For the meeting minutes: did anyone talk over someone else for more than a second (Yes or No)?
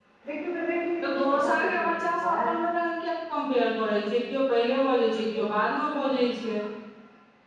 Yes